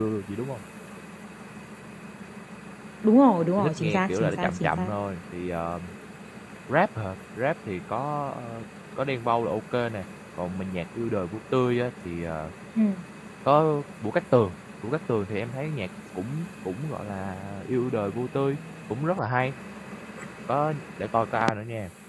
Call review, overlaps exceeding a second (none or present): present